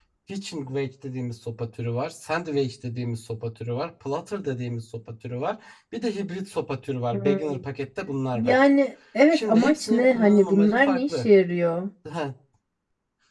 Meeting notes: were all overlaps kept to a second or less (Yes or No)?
No